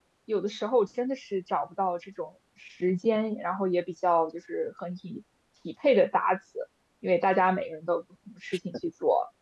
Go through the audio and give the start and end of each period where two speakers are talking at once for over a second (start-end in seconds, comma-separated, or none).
none